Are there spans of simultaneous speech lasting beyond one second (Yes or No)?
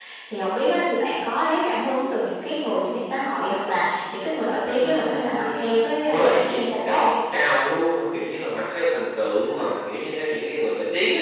Yes